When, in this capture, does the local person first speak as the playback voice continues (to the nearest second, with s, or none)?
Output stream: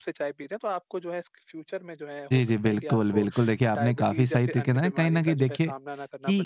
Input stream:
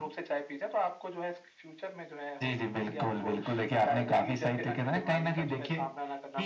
4 s